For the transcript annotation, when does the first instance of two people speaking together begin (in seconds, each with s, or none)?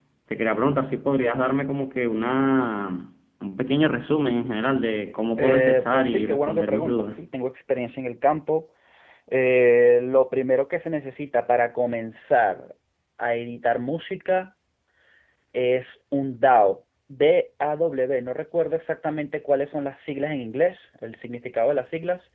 5.4 s